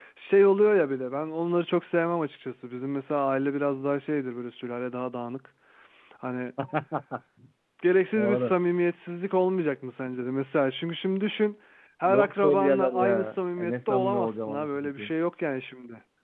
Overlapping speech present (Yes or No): Yes